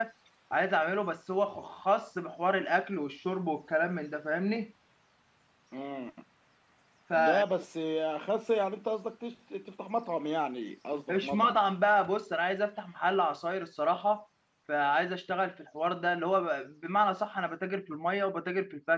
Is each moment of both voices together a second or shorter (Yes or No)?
Yes